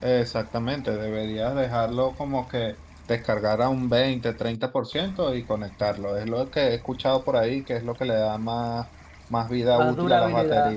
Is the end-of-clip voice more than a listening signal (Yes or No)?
Yes